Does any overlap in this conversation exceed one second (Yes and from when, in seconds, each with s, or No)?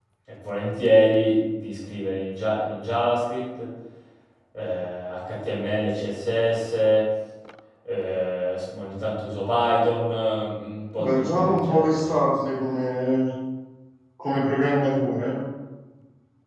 Yes, from 11.0 s